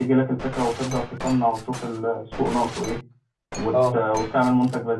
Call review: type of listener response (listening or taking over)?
listening